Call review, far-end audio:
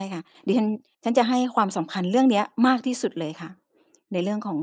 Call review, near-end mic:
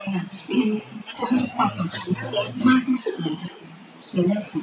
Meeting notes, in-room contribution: present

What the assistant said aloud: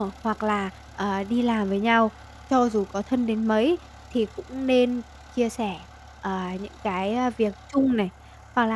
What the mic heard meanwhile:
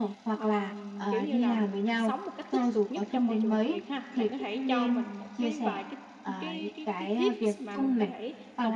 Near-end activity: present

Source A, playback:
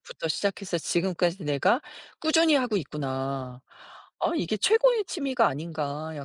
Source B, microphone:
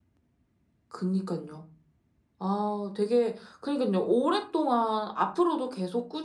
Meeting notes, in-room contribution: present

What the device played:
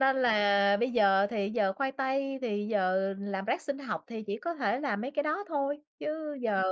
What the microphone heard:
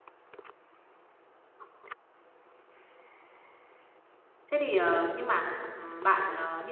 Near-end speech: present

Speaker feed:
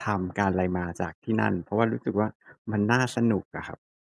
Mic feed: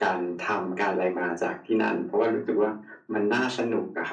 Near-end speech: none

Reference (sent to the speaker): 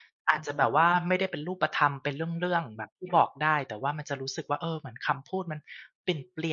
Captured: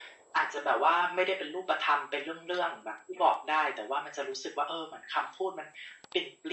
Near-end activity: none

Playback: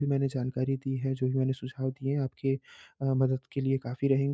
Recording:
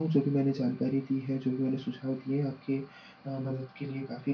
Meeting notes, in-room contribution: none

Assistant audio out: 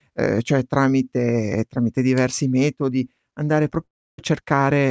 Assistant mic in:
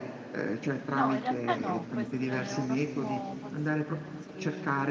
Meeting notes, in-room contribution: present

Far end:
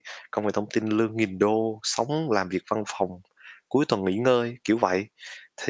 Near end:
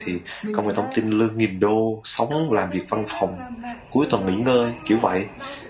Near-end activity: present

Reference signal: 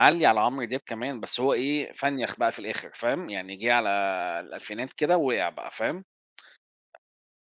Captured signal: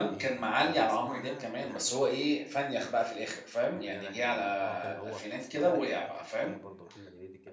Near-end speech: present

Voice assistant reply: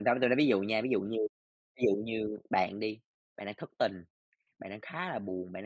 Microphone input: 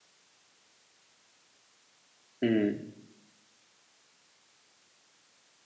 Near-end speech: present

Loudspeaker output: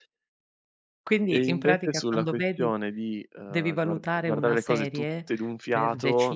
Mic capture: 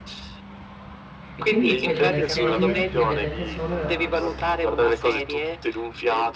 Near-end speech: present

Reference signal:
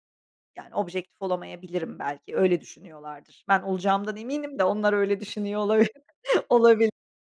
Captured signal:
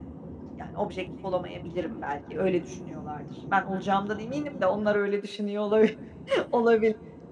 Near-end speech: none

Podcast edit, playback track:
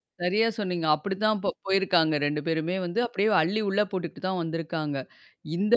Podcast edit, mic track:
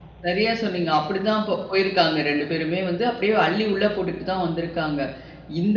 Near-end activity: none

